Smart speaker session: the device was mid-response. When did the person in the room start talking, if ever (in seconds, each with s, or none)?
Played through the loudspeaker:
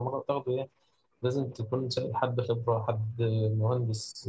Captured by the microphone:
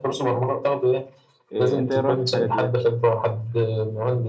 1.5 s